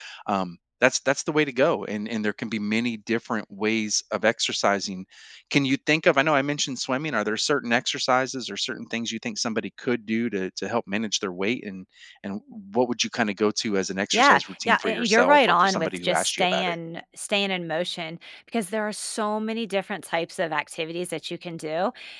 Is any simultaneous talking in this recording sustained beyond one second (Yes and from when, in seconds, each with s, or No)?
Yes, from 14.1 s